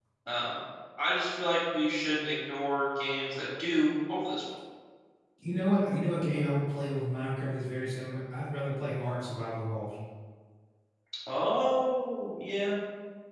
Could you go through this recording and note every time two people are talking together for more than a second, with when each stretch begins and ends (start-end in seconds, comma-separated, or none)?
none